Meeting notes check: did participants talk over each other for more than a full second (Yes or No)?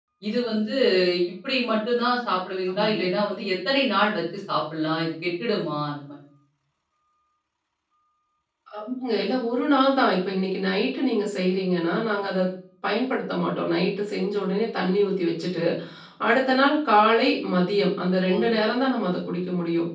No